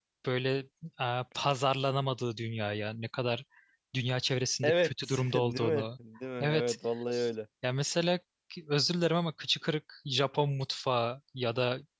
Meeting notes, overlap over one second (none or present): present